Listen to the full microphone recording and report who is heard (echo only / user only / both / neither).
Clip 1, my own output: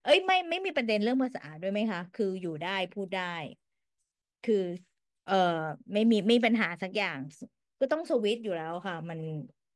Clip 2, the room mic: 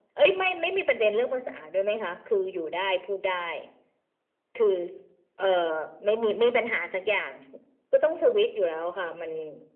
echo only